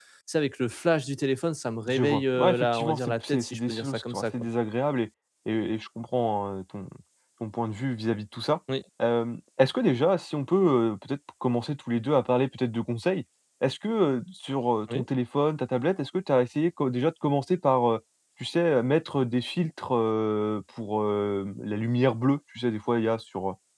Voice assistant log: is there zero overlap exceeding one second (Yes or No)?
No